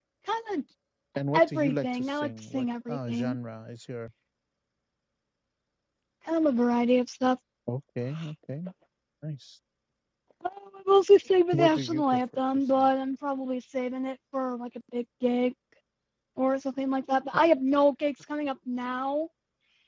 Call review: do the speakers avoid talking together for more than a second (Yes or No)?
No